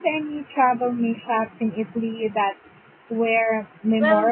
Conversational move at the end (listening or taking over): taking over